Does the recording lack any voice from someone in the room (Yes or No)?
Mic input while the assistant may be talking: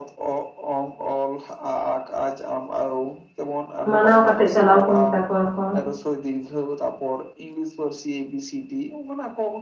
No